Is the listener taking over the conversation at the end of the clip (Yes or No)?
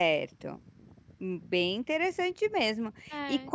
No